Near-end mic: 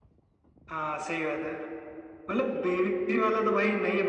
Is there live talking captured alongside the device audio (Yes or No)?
No